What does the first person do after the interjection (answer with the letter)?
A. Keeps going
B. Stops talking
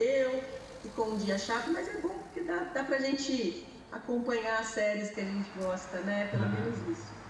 B